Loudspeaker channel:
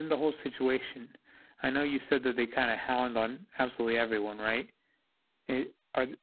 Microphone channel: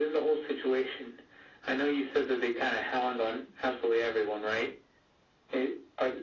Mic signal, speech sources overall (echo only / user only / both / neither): echo only